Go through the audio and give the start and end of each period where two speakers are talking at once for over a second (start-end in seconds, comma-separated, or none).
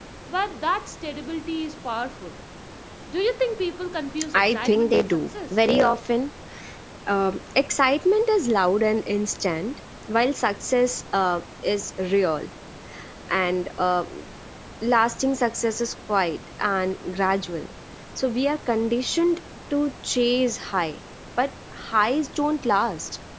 4.3-5.6